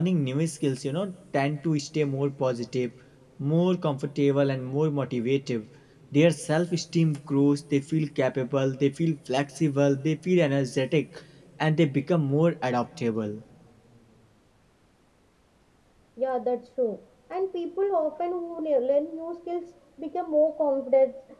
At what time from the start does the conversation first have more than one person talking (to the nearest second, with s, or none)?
none